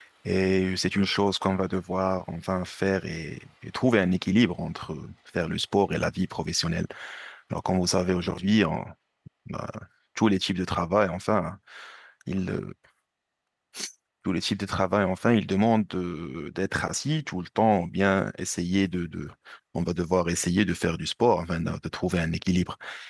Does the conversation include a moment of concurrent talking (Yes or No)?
No